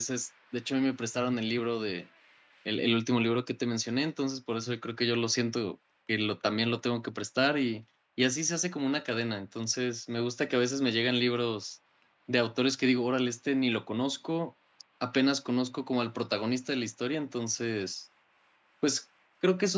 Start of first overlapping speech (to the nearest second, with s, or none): none